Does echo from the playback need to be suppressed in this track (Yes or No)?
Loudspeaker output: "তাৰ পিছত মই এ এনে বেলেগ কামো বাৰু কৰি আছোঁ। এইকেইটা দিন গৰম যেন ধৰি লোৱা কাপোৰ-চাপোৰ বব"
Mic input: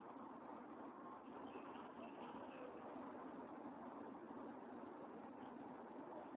No